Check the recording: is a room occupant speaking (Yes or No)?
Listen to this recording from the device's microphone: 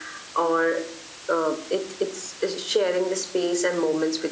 No